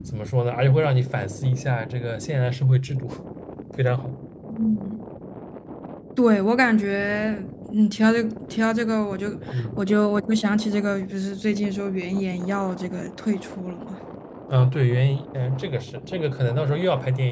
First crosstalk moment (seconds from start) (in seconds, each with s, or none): none